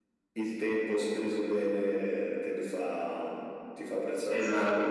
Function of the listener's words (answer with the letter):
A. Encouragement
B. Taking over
B